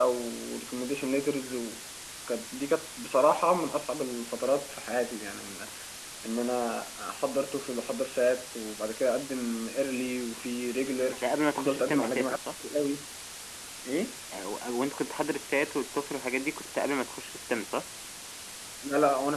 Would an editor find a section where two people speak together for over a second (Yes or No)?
Yes